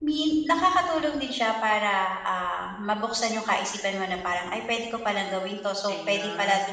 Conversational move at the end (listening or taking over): listening